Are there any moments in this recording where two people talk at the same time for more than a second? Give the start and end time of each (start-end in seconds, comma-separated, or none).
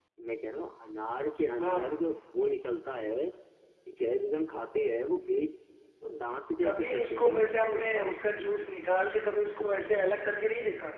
6.6-8.2